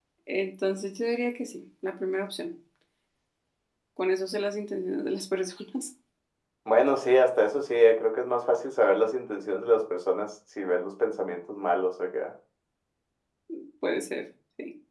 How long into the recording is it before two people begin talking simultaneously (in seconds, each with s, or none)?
none